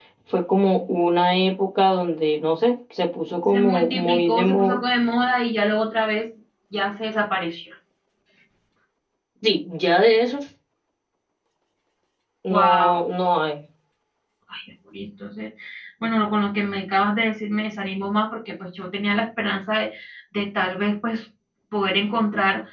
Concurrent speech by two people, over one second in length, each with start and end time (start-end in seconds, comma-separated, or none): 3.5-4.8